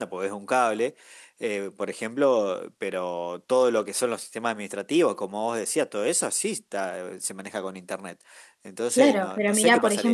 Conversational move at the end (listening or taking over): taking over